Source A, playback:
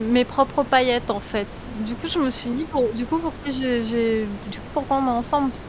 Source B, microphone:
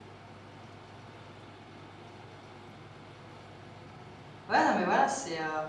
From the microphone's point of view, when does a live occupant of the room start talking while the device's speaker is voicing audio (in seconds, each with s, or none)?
4.5 s